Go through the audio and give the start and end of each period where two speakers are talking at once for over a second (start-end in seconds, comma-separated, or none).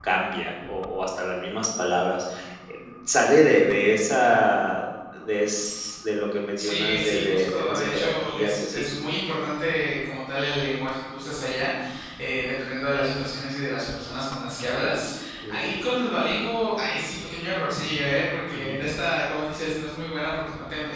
6.6-8.9